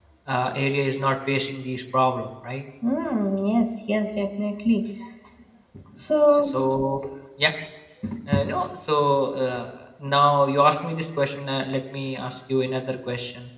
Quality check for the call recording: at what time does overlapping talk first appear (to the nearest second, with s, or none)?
none